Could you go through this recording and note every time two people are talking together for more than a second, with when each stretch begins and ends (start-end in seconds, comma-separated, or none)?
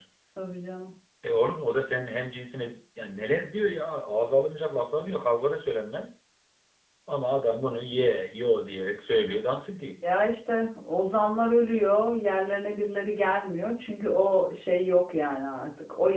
none